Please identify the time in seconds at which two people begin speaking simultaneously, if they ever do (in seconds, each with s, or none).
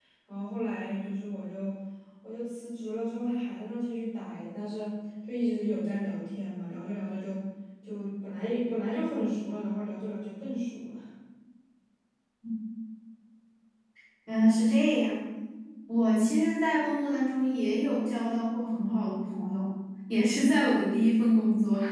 none